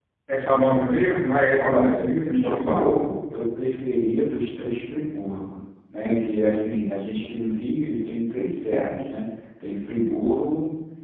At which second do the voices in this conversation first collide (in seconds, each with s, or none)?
1.6 s